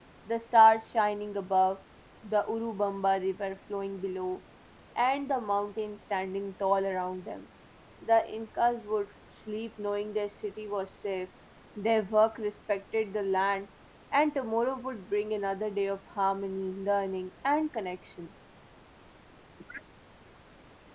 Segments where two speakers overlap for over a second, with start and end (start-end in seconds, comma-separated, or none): none